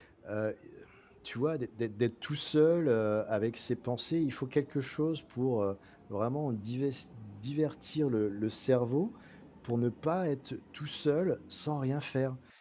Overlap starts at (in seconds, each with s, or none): none